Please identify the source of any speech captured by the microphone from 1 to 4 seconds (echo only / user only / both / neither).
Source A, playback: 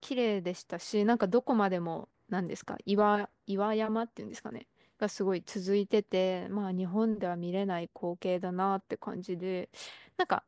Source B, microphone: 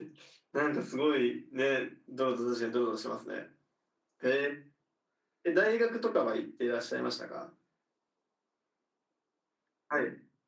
user only